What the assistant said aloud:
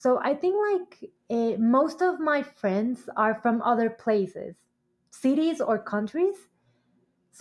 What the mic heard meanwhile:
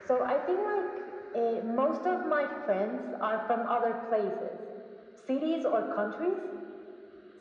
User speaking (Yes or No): No